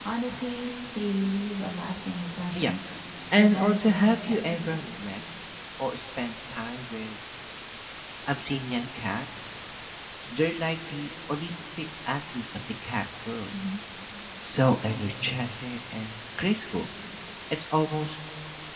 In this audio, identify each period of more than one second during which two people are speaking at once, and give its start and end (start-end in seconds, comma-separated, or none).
3.4-4.6